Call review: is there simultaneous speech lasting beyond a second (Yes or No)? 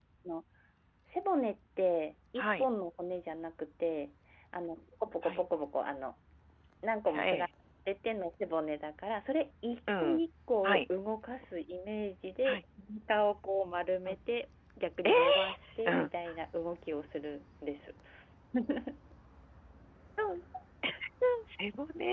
No